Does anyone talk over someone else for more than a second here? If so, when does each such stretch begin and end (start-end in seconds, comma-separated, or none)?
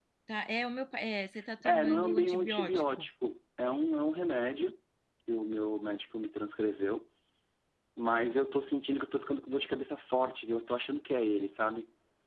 1.6-3.1